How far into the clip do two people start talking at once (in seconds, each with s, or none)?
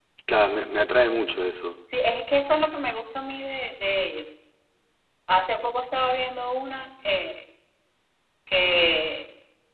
none